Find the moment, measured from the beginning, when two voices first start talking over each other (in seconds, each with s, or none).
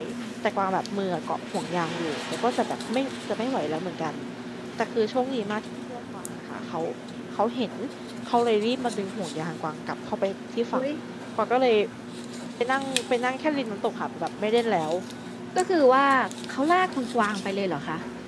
none